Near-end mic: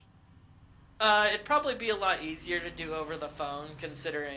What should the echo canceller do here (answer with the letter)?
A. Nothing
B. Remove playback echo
A